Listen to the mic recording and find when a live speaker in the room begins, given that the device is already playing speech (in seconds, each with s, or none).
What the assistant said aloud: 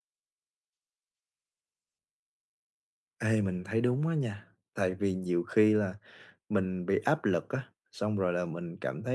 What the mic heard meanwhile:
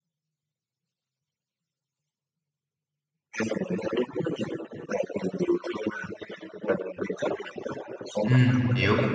8.2 s